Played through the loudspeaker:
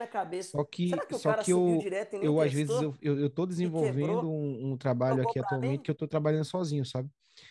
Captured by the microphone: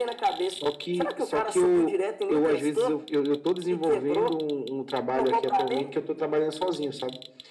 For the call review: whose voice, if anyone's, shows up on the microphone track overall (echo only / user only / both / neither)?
echo only